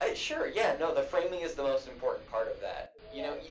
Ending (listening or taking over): listening